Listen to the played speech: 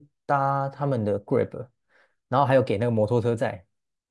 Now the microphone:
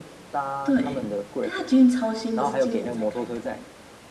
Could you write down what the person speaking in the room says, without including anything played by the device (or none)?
对，哎，它捷运超新的，是今年才开通，